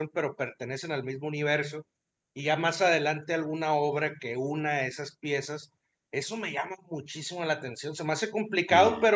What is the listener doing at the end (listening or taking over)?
listening